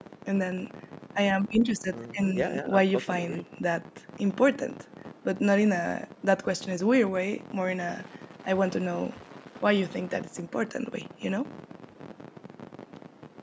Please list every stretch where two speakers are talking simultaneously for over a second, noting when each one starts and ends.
1.9-3.4

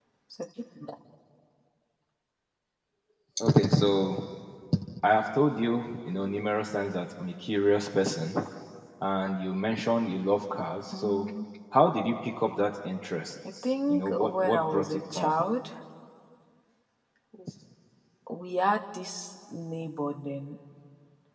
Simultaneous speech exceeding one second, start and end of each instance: 13.9-15.3

